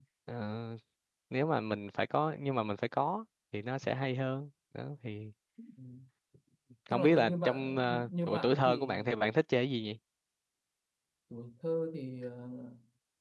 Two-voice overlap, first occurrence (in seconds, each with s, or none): 6.9 s